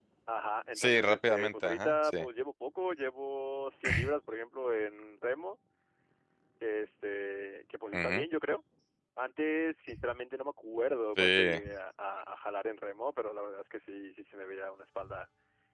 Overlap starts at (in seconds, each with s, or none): 0.8 s